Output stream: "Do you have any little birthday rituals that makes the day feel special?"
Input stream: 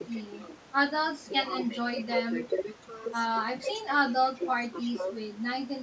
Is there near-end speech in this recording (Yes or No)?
Yes